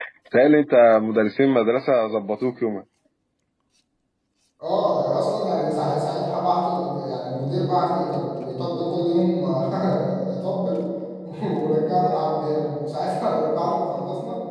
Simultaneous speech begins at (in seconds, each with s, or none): none